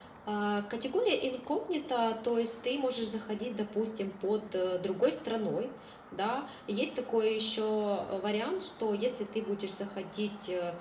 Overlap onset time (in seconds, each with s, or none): none